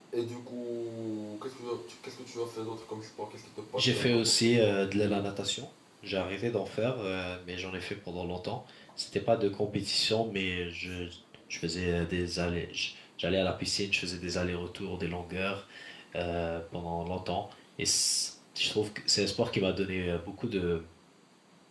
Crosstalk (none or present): present